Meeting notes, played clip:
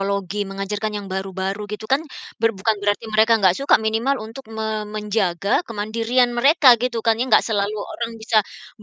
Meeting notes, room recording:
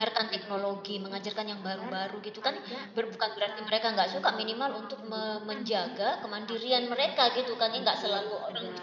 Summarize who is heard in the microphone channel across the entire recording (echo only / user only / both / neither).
both